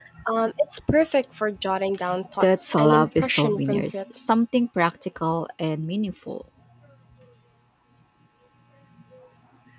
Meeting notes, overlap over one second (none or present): present